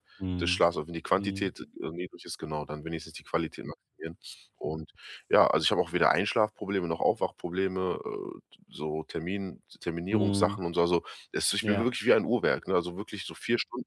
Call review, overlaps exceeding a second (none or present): none